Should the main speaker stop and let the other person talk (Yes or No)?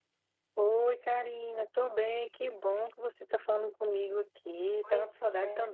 Yes